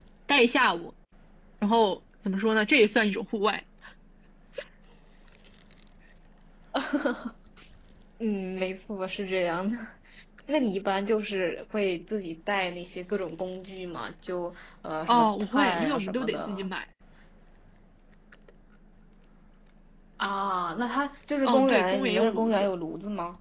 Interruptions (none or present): present